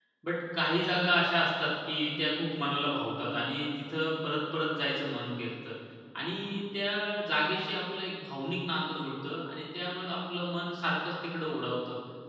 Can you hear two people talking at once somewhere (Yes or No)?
No